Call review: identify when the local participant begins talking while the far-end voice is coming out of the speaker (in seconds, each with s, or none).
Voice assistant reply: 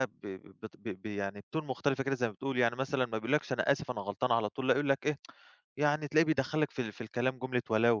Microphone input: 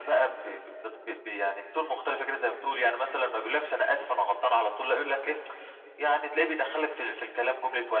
none